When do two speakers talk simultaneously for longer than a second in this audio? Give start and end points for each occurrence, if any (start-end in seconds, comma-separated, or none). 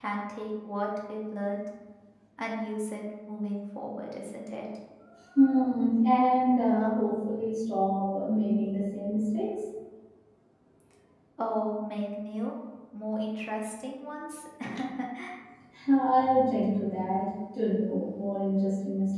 none